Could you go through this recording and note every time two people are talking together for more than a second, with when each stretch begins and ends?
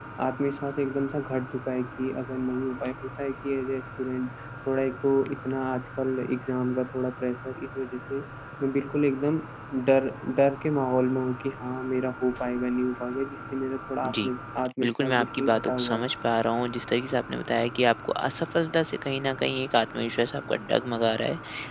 14.8-16.1

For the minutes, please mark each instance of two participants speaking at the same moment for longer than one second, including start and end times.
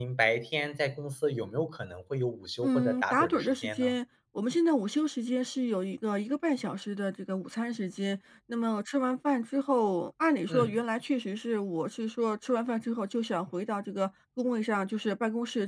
2.6-4.0

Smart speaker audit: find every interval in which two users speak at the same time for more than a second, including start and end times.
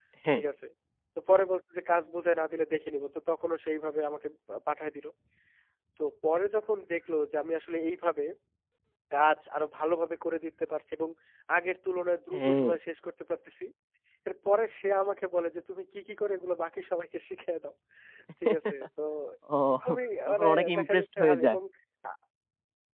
20.3-21.6

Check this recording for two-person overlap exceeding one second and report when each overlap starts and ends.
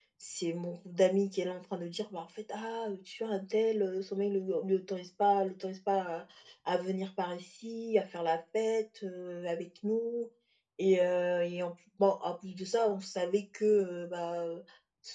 none

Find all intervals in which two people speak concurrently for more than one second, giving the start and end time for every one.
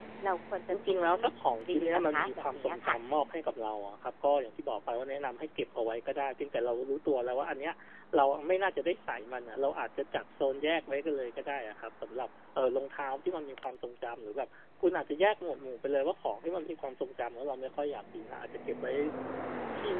1.7-3.0

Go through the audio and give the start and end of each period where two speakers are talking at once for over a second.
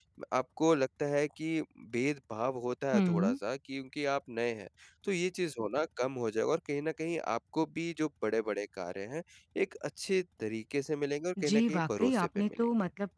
11.4-12.7

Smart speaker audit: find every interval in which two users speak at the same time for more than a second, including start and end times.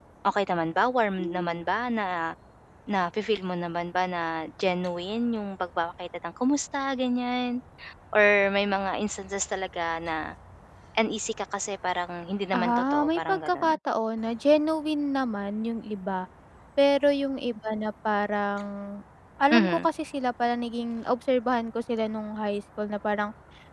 12.5-13.8

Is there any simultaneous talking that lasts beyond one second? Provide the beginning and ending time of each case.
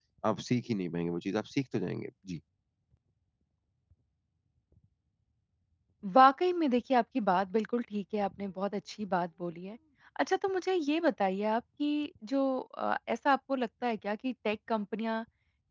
none

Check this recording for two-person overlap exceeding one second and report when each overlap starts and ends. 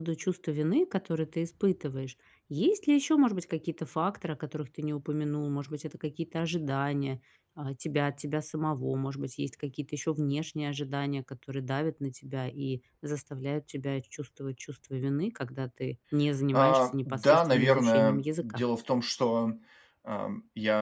16.5-18.6

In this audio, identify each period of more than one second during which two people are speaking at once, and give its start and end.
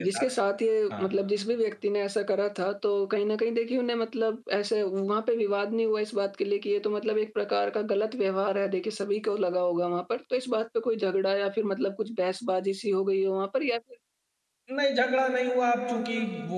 none

